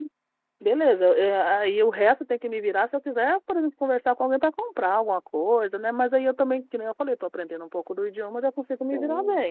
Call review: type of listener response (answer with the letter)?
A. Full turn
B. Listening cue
A